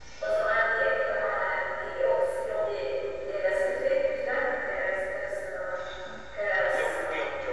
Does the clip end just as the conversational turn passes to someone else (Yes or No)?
Yes